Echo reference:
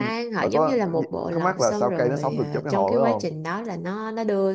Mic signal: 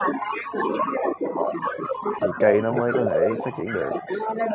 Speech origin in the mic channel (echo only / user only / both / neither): both